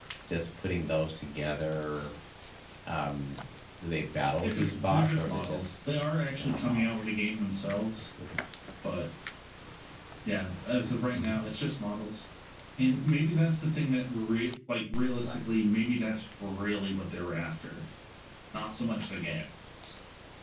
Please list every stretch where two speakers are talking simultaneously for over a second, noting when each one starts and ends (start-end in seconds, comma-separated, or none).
4.4-5.8